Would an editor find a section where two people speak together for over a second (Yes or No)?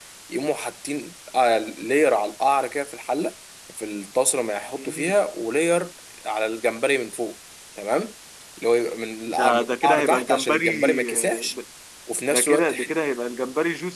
Yes